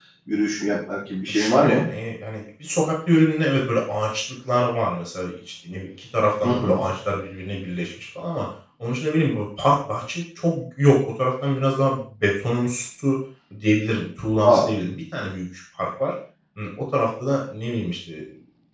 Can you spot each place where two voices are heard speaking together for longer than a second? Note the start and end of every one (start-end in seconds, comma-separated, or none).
none